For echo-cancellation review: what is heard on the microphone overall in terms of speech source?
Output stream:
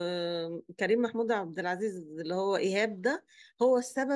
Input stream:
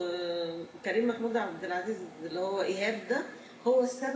echo only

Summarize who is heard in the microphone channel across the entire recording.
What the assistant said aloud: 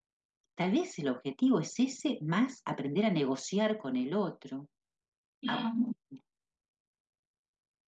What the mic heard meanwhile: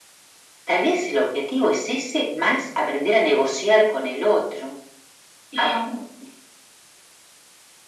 echo only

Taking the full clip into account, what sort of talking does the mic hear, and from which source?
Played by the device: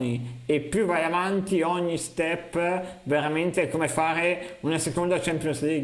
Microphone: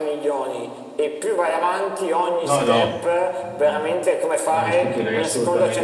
both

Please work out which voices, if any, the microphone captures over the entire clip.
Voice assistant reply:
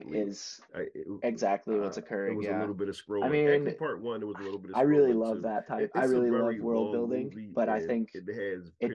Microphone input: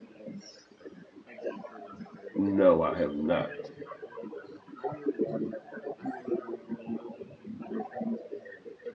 both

